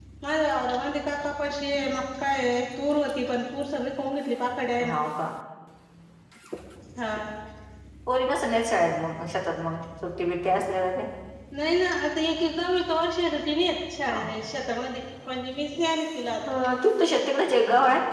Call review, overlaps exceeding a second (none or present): none